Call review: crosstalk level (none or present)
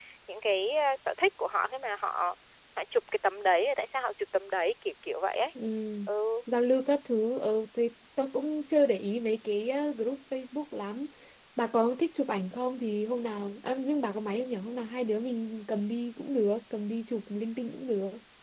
none